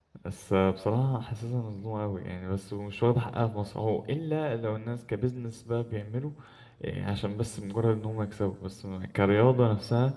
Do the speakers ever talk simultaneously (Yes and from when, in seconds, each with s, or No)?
No